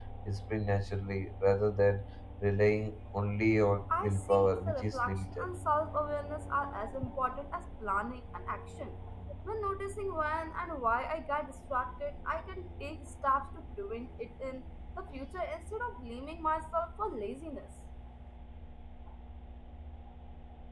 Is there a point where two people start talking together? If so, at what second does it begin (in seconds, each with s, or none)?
3.9 s